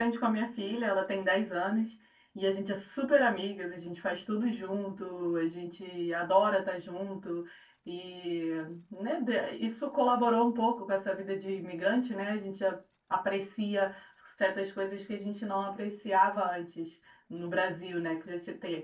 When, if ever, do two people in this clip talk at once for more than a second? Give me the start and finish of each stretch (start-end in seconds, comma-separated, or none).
none